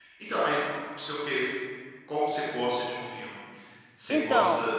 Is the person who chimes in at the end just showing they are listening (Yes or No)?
Yes